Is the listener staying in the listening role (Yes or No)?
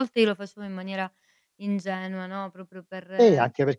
No